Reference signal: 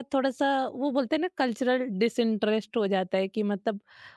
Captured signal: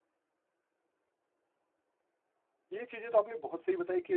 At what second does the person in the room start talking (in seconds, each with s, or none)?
2.7 s